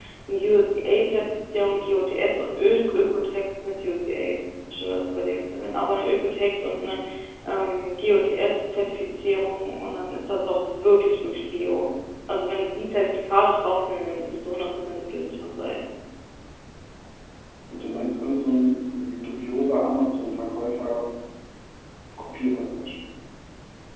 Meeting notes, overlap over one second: none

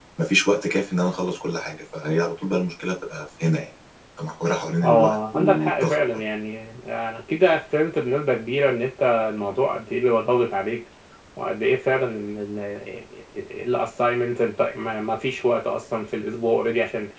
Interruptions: present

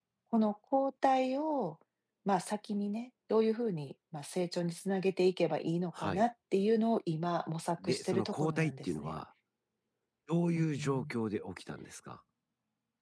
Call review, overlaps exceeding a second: present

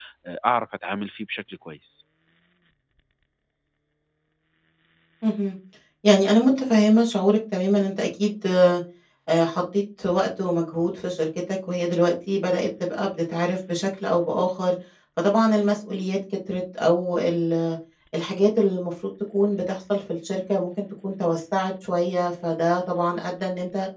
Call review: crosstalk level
none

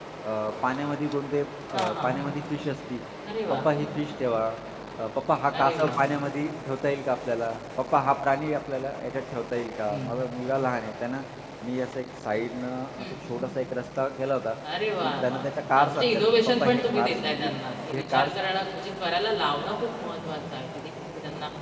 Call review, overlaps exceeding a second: present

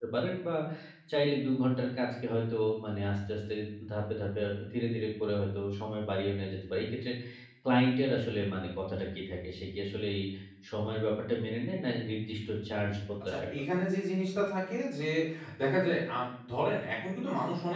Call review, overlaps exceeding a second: none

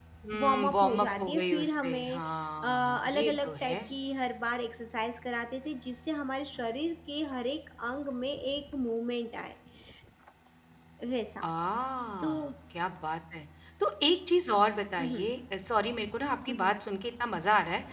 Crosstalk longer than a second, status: present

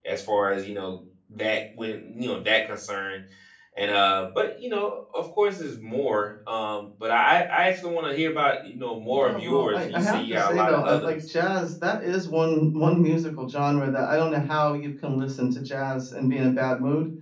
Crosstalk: present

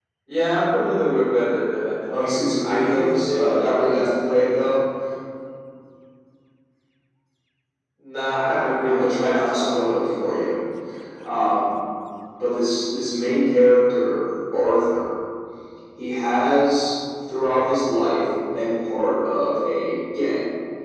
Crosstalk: present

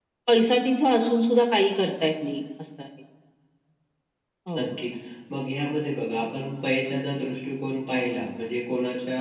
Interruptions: none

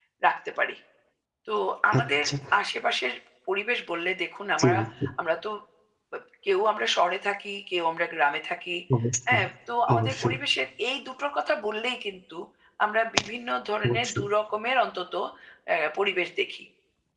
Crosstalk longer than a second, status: none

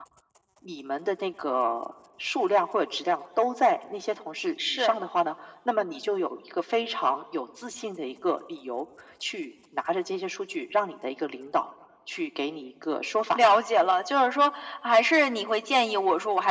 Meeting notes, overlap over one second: none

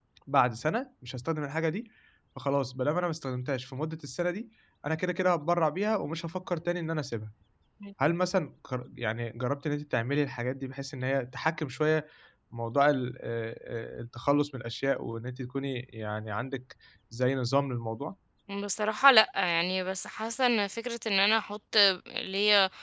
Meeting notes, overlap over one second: none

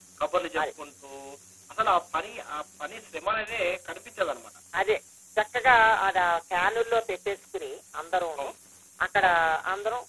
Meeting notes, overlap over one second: none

